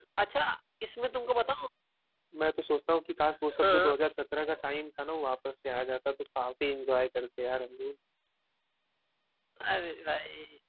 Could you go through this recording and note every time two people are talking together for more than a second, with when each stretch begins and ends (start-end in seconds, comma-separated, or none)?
none